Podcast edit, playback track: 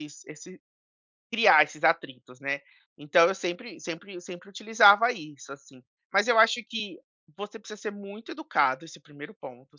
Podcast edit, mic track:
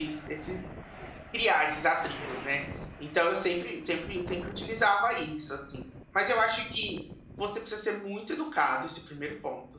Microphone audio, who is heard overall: echo only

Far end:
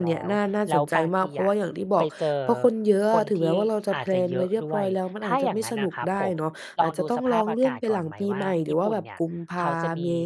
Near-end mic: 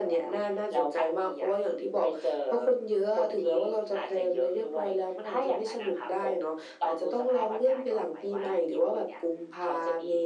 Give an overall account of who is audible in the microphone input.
echo only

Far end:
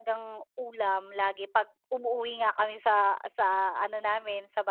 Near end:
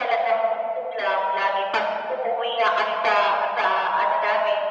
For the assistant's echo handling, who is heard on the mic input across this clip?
echo only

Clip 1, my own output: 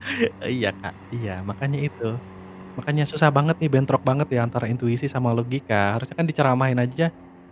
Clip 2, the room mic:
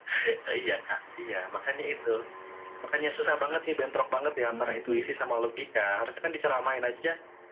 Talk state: both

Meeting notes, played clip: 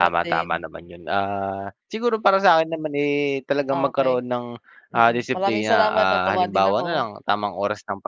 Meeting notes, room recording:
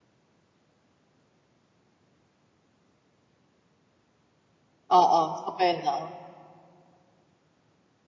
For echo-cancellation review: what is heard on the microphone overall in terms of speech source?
user only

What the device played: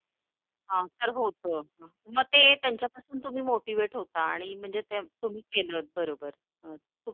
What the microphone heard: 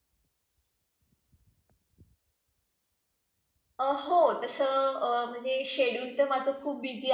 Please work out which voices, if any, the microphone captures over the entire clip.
user only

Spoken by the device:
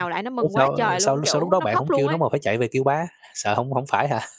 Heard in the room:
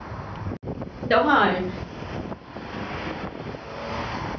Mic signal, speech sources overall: user only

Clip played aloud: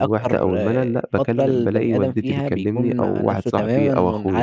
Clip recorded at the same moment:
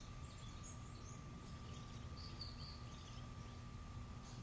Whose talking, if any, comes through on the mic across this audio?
neither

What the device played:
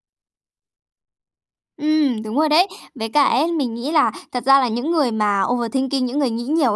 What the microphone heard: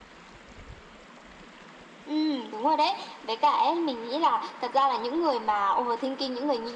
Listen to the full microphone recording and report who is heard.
echo only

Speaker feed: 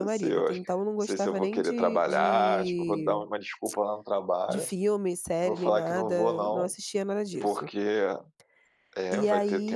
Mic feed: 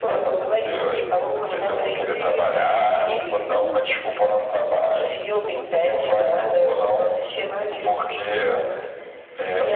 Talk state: both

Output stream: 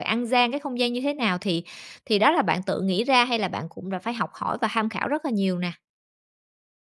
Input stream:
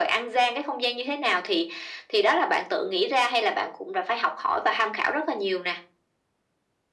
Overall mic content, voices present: echo only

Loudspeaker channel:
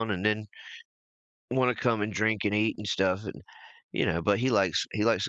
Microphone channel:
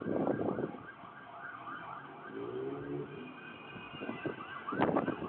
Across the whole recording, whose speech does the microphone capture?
neither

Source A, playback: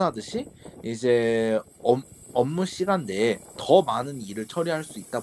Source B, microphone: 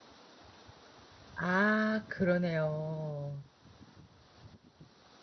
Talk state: user only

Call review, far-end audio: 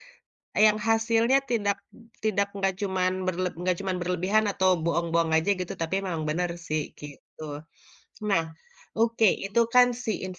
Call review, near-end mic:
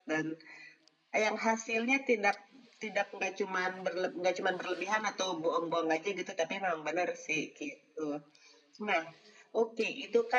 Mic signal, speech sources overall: echo only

